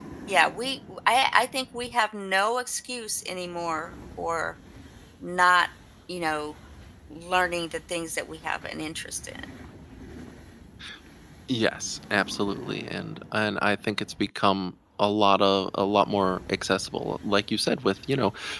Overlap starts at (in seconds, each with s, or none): none